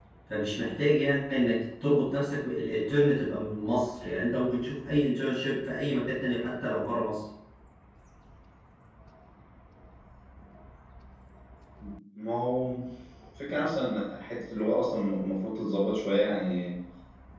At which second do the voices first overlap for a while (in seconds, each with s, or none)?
none